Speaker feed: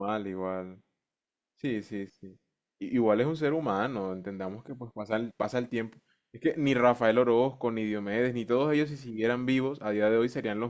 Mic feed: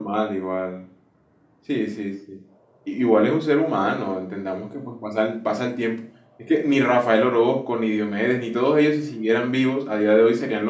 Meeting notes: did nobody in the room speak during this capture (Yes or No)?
Yes